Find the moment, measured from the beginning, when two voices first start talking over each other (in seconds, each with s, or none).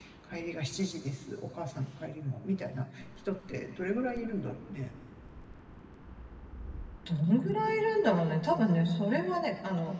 none